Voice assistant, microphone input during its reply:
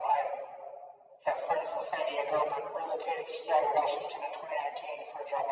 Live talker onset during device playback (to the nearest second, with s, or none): none